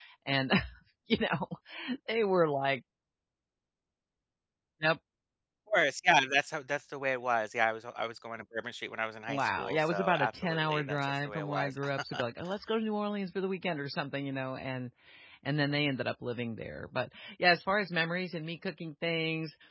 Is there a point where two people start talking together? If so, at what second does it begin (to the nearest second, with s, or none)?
9 s